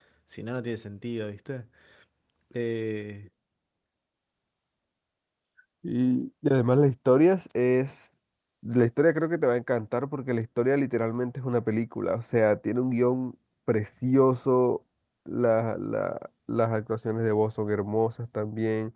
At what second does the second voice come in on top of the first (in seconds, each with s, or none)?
none